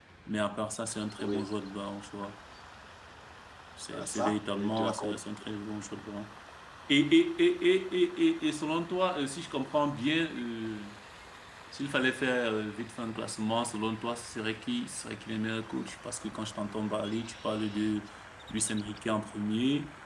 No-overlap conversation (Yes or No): No